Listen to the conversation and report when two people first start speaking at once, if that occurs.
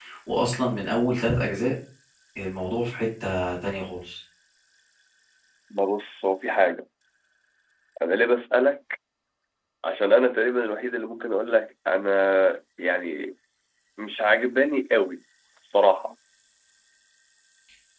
none

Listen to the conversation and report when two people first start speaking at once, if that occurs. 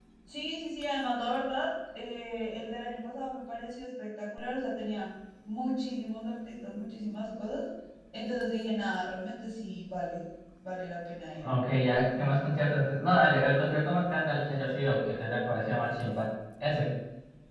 none

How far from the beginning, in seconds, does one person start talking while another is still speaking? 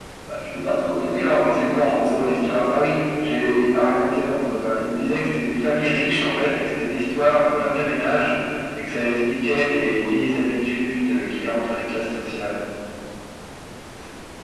1.1 s

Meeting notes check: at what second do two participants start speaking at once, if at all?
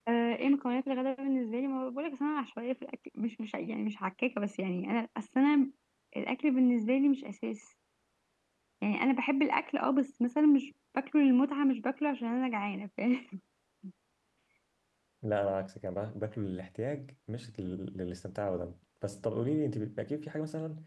none

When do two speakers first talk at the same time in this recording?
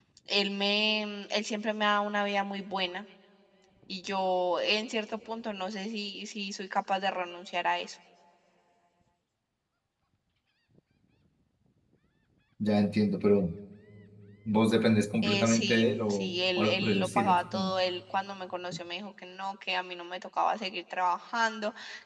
15.2 s

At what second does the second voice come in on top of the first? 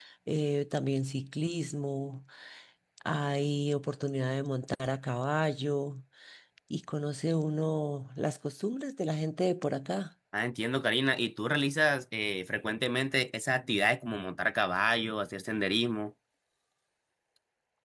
none

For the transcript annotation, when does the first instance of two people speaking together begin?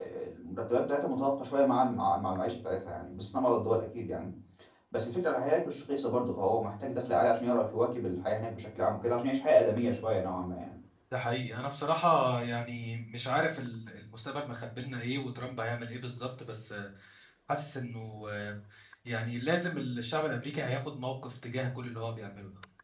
none

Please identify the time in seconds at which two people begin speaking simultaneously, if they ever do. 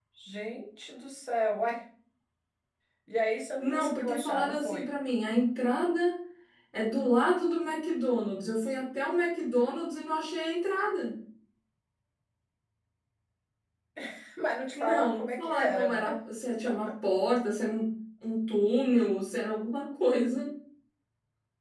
3.6 s

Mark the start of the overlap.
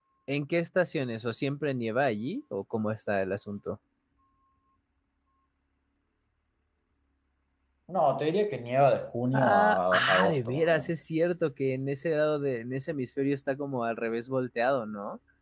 9.3 s

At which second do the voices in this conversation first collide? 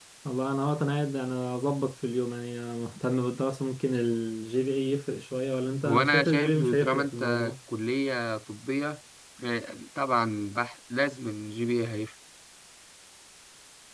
5.8 s

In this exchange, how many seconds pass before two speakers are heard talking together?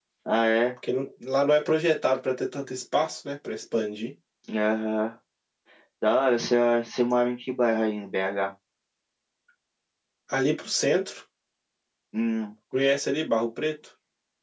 none

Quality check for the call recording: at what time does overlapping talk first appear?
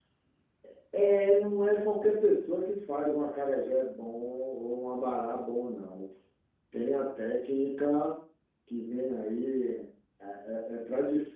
none

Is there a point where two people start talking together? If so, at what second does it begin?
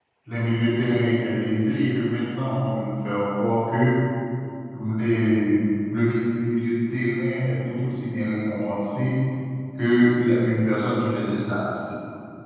none

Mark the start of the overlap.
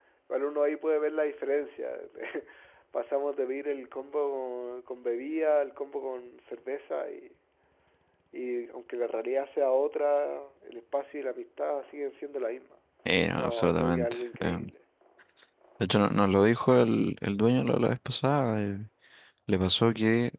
13.3 s

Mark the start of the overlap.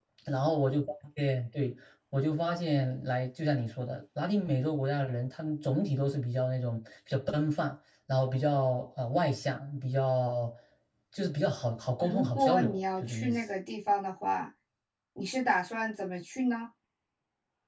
12.0 s

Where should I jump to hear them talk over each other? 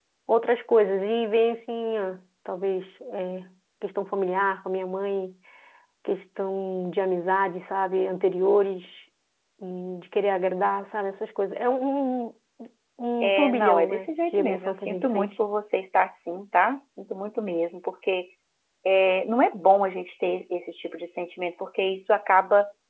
13.2 s

